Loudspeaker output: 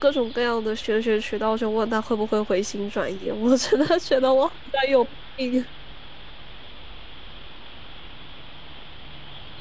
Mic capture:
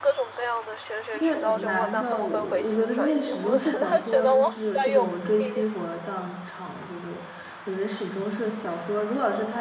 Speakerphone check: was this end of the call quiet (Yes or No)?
No